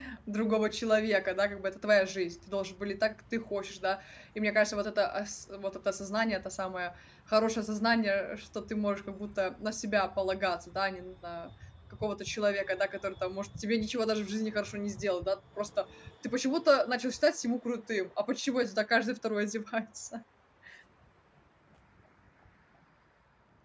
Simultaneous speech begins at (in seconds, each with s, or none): none